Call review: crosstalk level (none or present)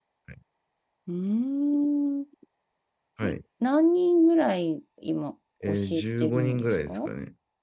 present